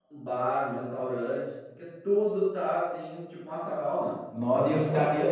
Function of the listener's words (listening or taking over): taking over